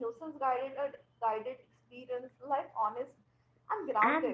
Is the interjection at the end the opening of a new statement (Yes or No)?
Yes